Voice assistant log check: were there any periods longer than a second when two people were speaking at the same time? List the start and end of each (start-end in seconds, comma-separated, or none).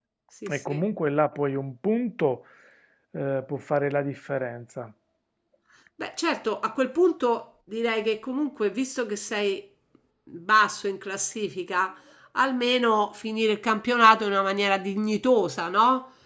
none